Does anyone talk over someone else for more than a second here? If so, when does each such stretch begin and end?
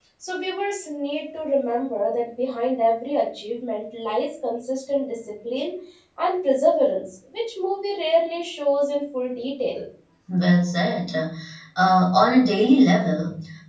none

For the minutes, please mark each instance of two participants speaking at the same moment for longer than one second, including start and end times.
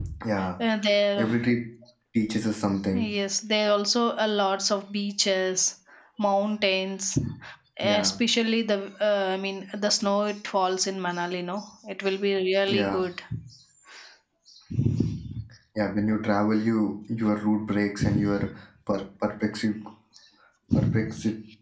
none

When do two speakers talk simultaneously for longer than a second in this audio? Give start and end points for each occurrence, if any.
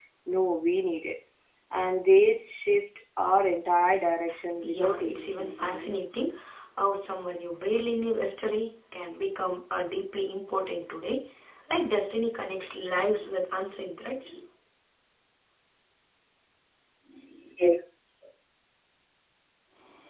4.6-5.9

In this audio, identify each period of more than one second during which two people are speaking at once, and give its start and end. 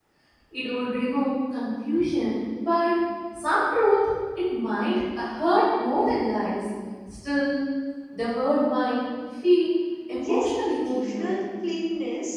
10.2-11.4

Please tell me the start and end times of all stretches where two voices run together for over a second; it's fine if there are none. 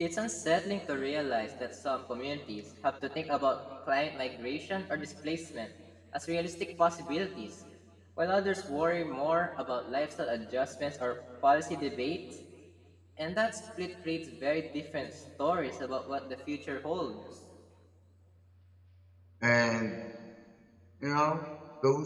none

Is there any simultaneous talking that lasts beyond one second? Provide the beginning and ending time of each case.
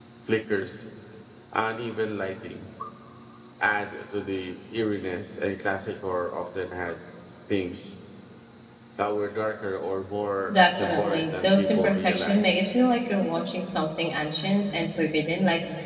10.5-12.6

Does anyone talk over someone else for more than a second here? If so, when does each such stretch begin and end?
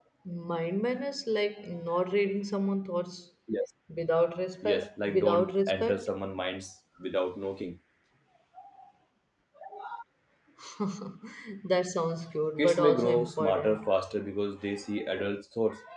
4.6-6.1, 12.6-13.8

